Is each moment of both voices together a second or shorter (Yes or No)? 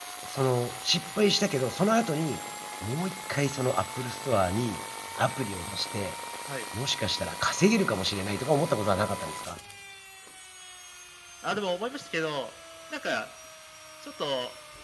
Yes